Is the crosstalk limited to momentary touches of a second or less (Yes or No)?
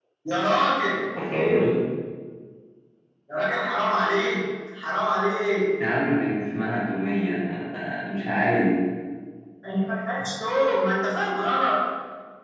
Yes